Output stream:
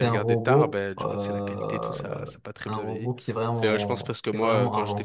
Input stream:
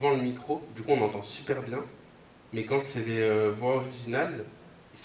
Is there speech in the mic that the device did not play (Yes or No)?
Yes